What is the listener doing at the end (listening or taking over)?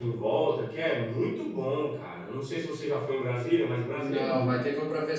taking over